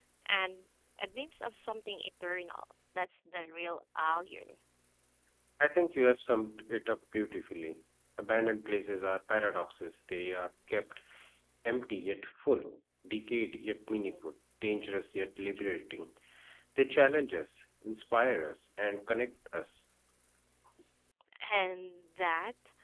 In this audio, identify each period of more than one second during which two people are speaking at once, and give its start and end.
none

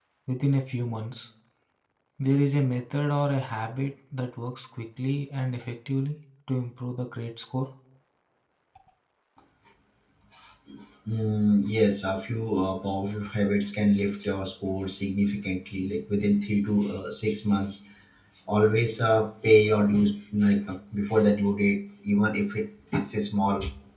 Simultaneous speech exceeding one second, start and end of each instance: none

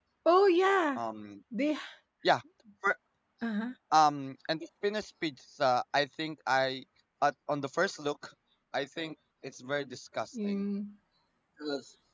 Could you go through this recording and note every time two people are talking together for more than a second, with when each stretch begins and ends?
none

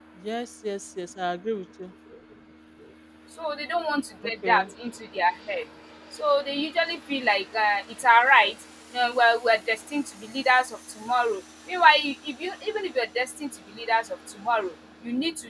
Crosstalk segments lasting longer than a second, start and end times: none

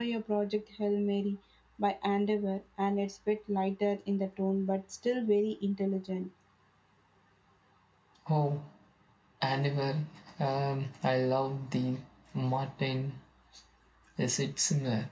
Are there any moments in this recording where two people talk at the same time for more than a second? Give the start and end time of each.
none

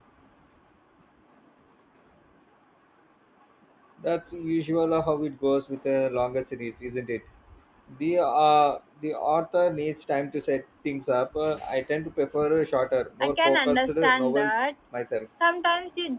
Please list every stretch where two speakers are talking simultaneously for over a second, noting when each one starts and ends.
13.2-14.6

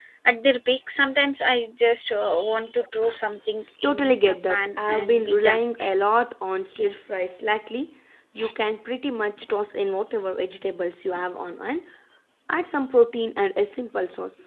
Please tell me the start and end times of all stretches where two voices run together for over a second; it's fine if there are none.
3.8-5.6

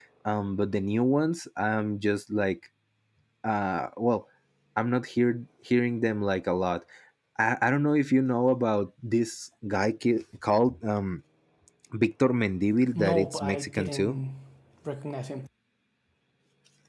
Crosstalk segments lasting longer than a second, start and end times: 12.9-14.2

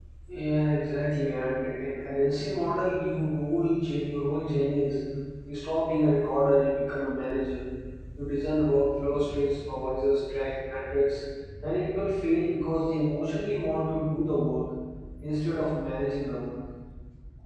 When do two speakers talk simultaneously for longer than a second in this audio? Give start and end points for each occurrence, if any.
none

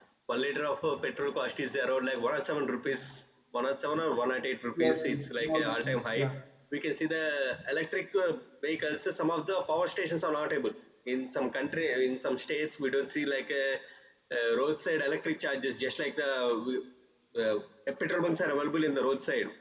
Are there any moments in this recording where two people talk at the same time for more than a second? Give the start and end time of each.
4.8-6.2

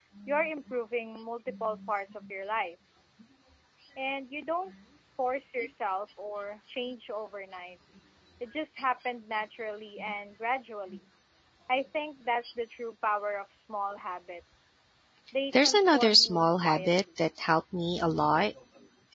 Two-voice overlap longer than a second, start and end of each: 15.5-17.0

